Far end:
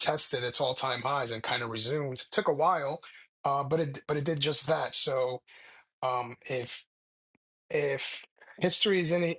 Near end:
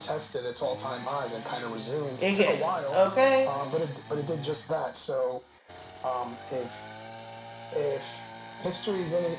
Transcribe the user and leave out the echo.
again. Okay.

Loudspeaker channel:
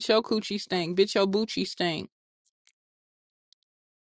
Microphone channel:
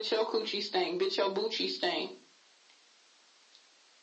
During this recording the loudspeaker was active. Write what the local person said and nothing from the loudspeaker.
none

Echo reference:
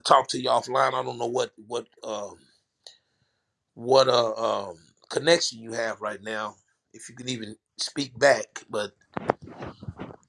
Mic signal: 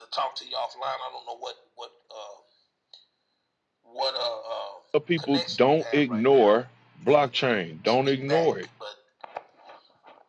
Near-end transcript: Tell People don't ignore blockchain. Don't ignore it.

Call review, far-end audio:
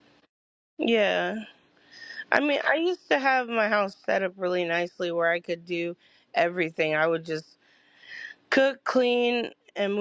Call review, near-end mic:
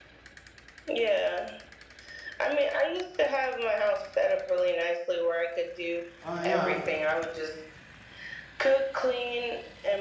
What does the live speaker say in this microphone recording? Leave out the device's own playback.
I, uh,

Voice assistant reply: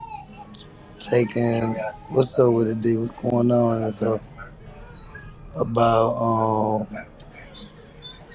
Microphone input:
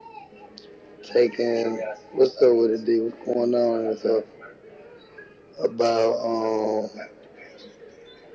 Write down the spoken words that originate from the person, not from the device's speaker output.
none

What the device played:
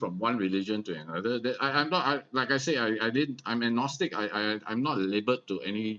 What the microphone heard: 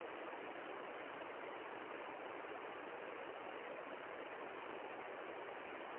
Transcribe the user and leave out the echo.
none

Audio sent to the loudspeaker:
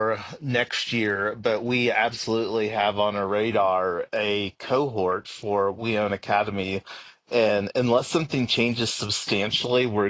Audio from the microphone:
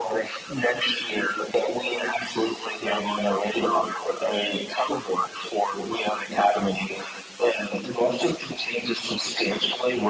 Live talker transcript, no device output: none

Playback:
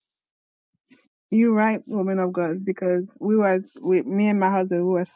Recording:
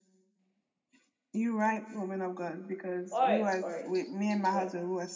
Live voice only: All right, all right. It is well.

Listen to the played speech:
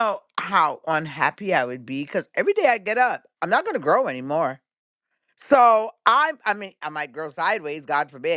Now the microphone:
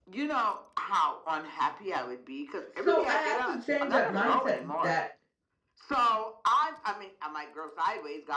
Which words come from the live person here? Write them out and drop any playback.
so i had to change that mindset that

